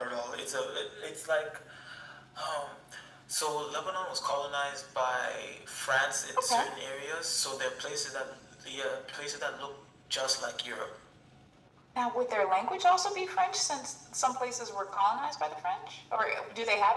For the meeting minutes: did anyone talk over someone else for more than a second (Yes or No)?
No